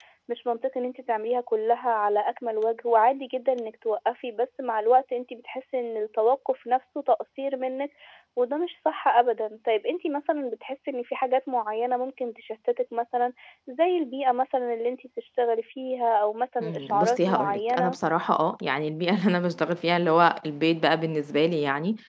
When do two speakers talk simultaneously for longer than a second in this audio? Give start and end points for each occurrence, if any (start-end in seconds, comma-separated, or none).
16.6-18.0